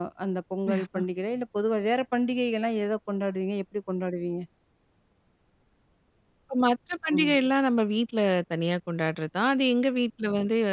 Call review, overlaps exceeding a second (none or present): none